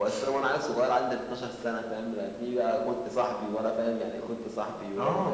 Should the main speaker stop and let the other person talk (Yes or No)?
Yes